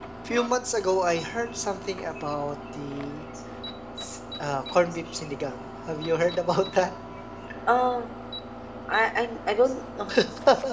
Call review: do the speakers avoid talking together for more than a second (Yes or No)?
Yes